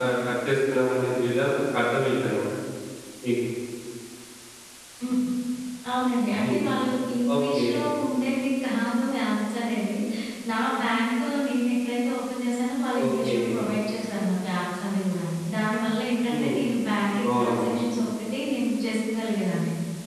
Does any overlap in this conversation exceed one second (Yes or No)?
No